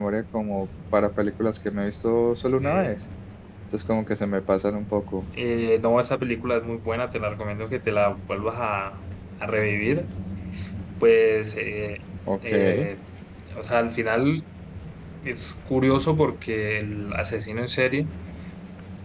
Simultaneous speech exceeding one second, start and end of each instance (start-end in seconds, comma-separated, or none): none